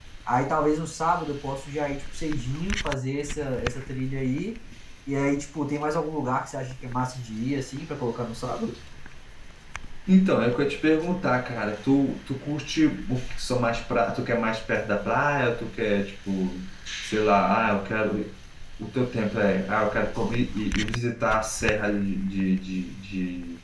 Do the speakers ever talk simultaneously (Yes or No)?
No